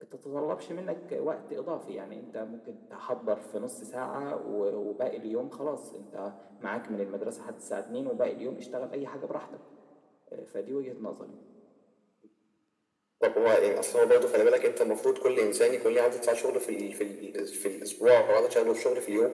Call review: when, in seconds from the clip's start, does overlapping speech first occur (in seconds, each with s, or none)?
none